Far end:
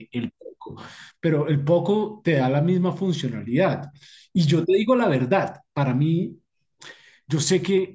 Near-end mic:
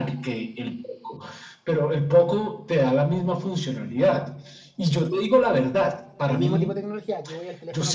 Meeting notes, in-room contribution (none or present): present